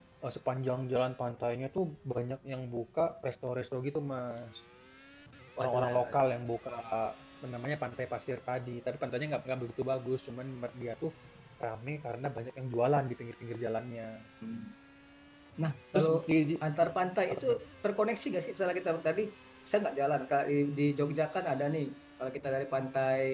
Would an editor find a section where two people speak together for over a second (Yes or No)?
No